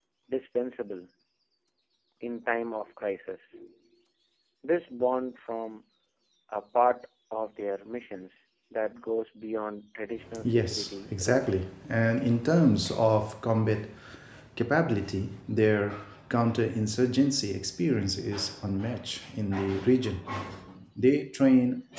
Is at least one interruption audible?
Yes, from 10.2 s

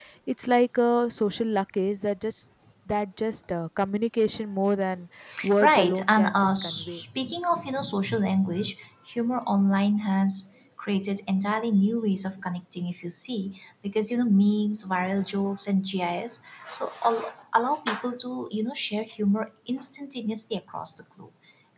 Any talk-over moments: Yes, from 5.6 s

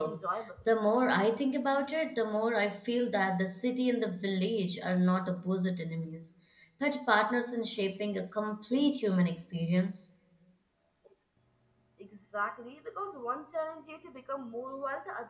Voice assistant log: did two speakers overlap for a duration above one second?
No

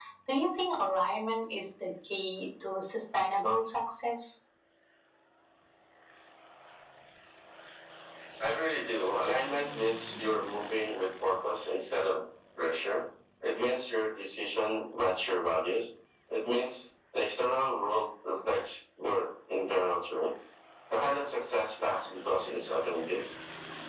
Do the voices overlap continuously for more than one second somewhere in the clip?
No

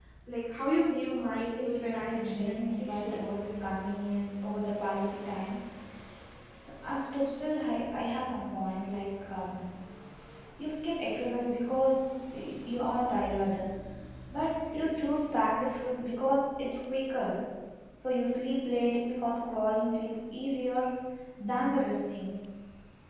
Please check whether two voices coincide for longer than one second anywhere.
Yes, from 1.0 s

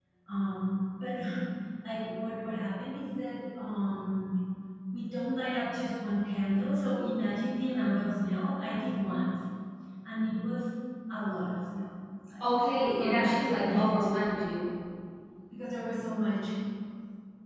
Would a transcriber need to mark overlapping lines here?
Yes, from 12.4 s

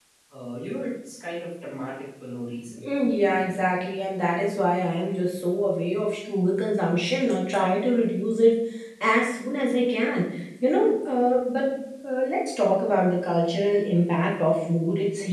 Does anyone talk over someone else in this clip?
No

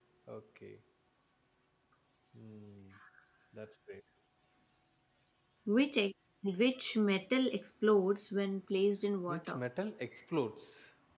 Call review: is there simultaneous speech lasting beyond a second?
No

